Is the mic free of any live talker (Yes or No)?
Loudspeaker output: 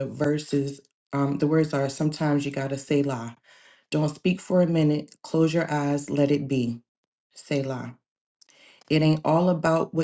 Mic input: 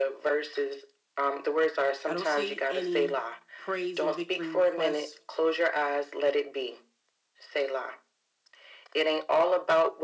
No